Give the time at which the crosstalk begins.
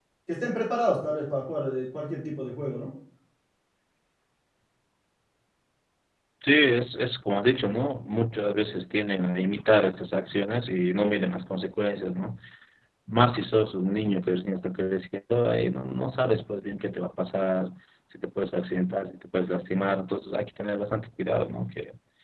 none

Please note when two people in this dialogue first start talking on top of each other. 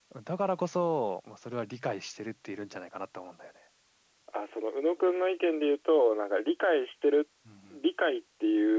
none

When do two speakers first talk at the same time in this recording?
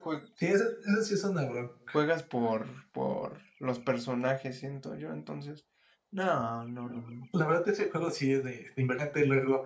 none

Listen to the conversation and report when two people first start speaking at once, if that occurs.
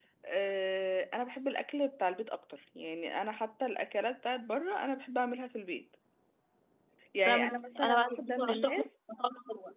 7.2 s

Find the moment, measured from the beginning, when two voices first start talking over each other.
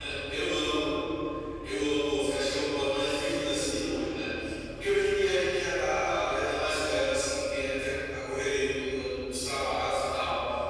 none

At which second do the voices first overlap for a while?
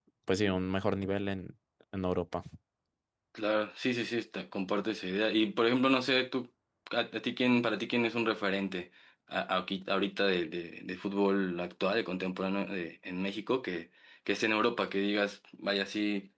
none

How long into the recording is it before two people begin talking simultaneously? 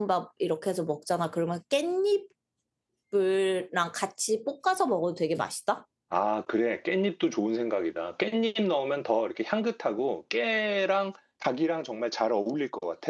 none

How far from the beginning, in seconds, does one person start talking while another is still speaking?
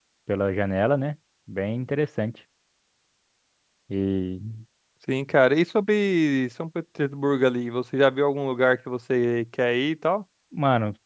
none

